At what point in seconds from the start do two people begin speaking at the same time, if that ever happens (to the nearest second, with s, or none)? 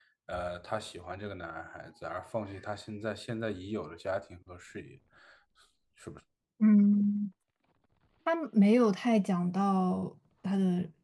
none